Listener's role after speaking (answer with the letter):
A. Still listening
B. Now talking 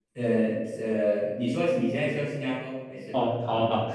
B